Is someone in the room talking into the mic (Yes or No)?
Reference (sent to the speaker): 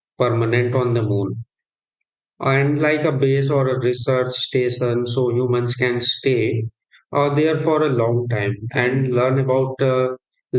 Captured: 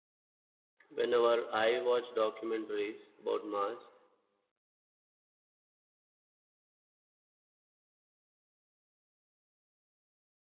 Yes